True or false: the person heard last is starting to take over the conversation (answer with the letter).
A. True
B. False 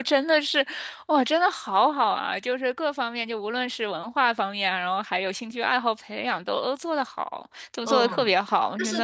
A